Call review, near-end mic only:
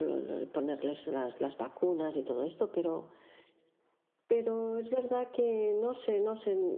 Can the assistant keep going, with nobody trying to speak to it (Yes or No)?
Yes